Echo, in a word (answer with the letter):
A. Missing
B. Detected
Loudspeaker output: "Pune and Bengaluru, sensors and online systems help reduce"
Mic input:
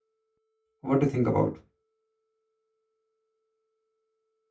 A